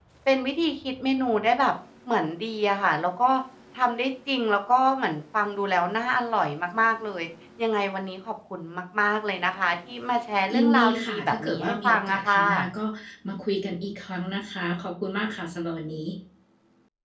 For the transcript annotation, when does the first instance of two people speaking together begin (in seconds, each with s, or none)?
10.5 s